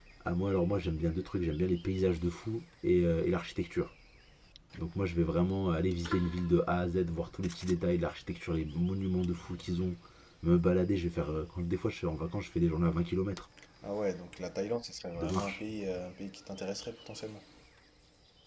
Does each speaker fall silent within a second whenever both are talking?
Yes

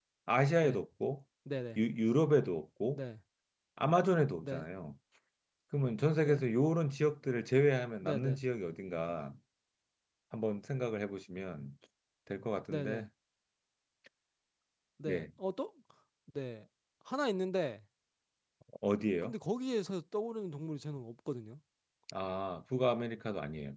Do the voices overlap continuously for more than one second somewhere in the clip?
No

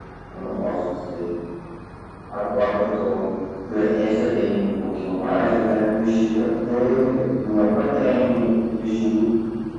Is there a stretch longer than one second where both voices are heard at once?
No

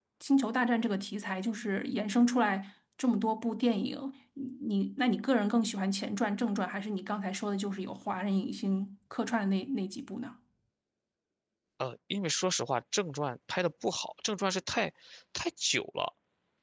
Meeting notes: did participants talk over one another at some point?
No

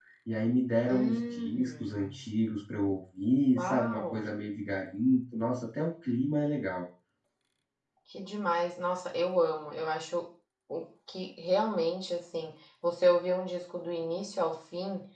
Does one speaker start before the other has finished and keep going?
Yes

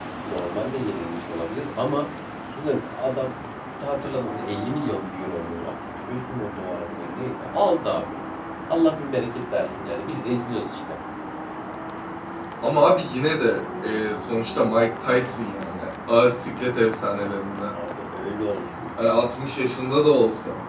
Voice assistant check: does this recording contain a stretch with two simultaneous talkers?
No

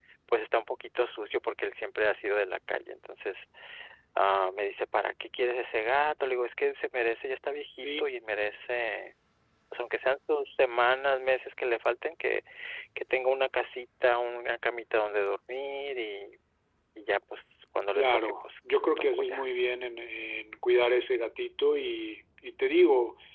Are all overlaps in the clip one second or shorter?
No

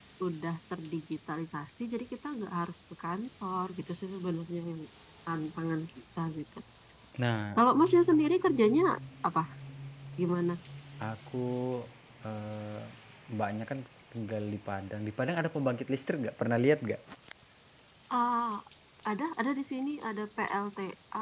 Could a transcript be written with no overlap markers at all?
Yes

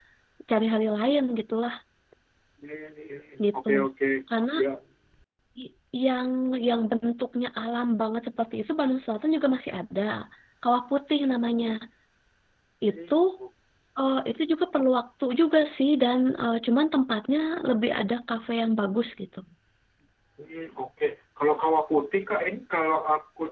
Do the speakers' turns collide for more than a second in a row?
No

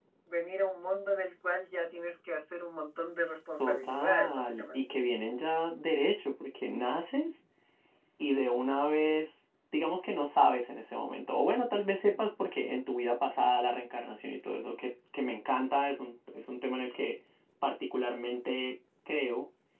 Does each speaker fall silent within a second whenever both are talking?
No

